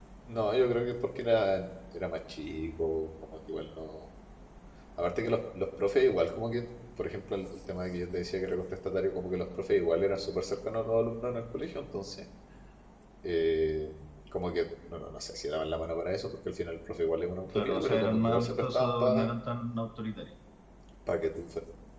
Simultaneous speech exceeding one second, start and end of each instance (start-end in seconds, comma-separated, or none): 17.5-19.3